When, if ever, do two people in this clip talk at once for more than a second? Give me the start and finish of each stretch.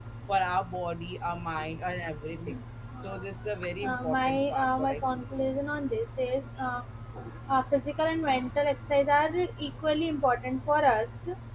3.9-5.5

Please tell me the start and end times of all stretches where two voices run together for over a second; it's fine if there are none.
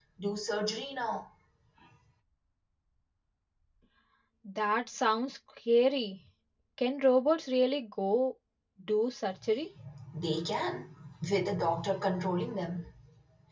none

